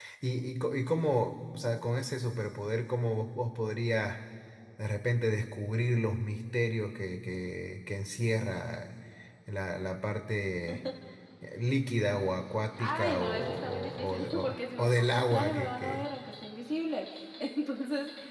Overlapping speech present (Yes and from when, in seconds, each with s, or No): Yes, from 12.8 s